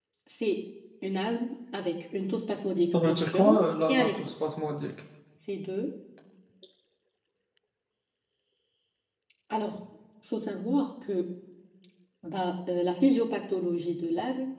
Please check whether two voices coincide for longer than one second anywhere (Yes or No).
Yes